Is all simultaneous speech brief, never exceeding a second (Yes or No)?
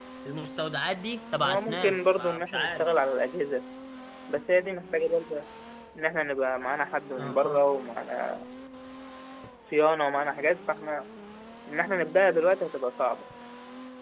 No